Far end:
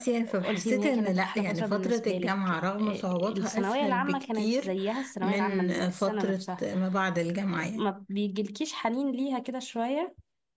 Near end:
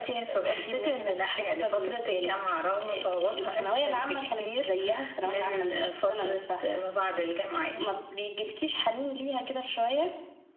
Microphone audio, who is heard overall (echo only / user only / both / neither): echo only